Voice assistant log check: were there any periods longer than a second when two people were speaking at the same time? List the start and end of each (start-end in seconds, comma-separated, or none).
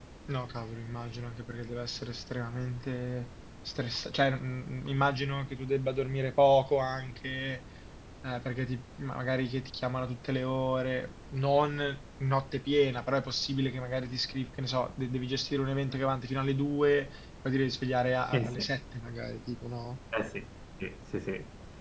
none